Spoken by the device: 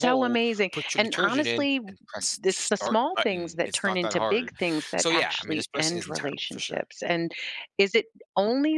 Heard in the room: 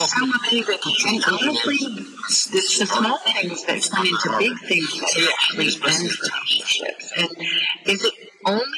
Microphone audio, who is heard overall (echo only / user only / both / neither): echo only